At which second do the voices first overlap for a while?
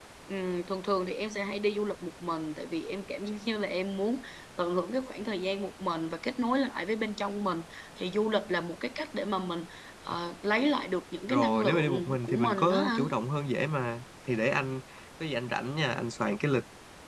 11 s

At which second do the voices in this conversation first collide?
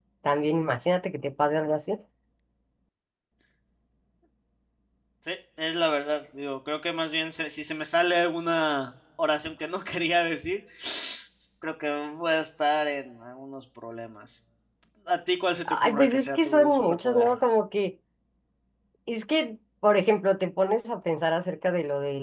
16 s

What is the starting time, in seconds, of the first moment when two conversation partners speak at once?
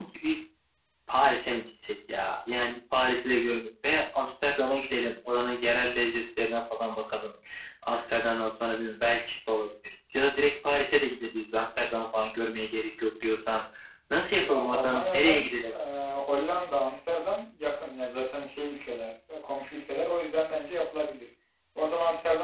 14 s

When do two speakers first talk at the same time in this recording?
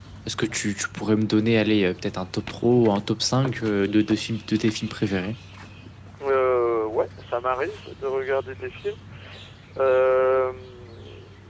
none

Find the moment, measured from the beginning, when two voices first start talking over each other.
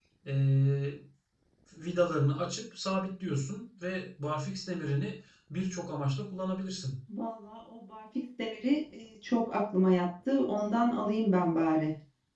none

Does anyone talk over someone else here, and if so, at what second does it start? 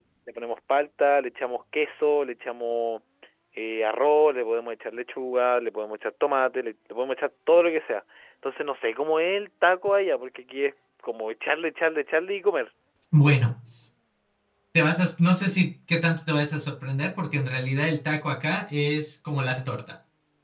none

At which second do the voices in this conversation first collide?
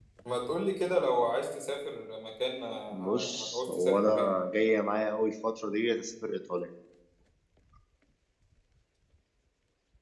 3 s

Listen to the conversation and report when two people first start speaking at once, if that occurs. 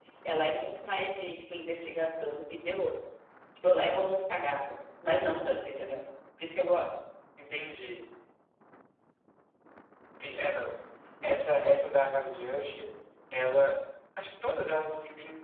none

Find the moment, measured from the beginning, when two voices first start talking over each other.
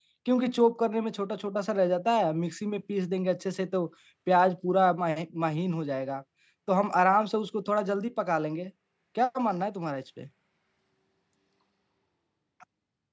none

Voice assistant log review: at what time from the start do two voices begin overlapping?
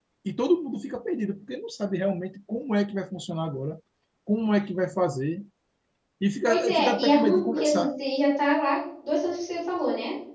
6 s

